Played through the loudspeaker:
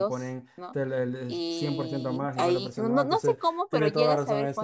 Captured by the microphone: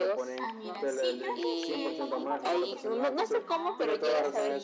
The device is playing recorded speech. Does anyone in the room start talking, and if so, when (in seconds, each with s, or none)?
0.3 s